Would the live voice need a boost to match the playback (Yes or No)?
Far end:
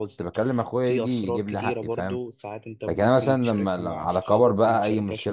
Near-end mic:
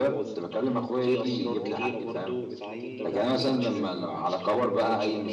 Yes